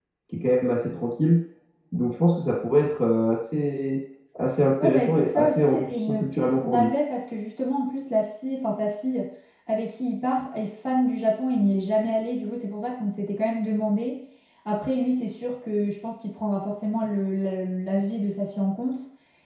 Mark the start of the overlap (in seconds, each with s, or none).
4.8 s